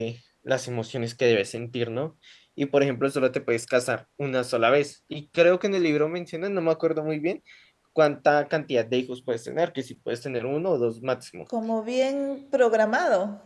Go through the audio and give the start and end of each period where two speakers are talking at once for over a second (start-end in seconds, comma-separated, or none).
none